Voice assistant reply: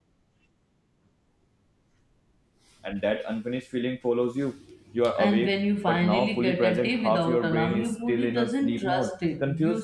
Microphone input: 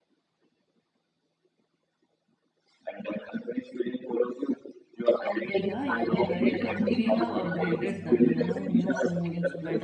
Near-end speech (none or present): present